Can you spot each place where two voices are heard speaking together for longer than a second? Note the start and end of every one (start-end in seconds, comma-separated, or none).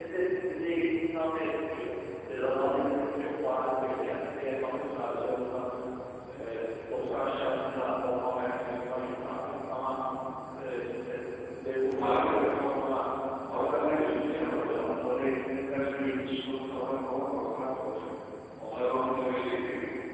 13.5-14.8